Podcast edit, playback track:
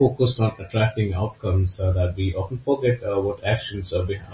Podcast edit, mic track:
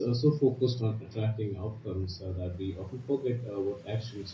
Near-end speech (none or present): none